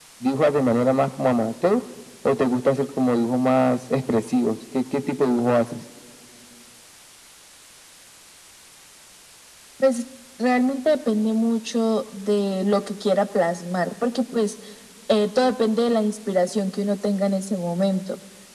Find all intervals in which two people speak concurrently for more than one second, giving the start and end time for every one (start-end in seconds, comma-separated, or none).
none